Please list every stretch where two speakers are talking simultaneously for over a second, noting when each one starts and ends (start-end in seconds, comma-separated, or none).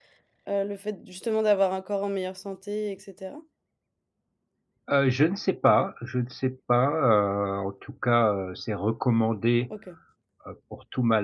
none